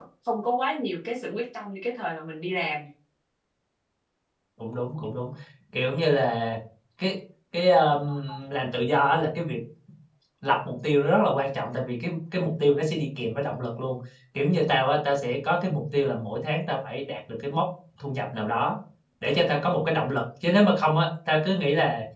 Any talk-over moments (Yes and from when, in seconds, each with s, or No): No